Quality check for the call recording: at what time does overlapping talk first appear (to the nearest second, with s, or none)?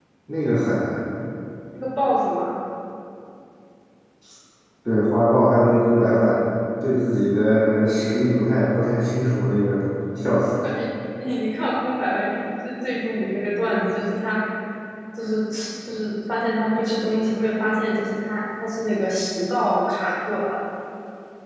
none